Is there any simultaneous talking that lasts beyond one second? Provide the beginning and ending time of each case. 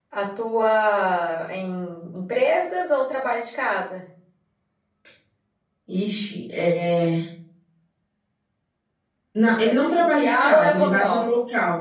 9.6-11.2

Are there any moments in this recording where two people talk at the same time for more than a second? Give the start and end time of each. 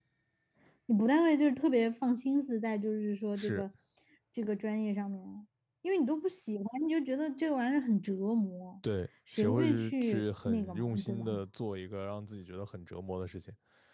9.3-11.4

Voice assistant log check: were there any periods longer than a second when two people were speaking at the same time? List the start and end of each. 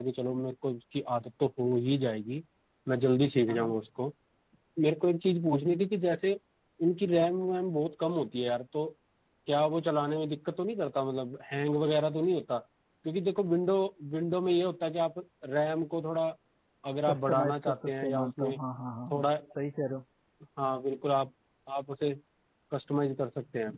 17.1-18.6

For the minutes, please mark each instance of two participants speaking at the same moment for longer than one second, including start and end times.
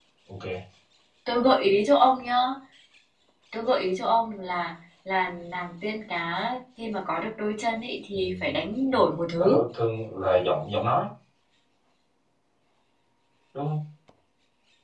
none

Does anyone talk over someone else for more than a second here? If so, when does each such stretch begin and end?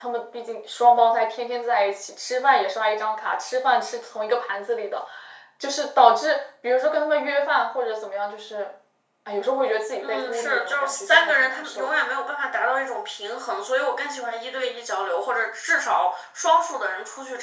10.0-11.9

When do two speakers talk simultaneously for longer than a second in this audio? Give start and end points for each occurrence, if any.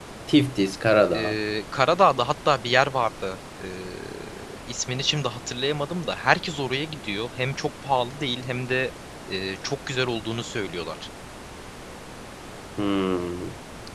none

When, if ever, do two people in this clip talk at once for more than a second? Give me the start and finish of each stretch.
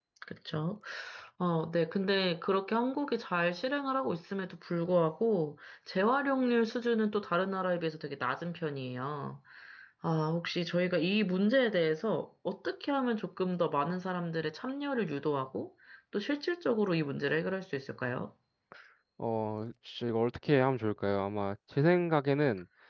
none

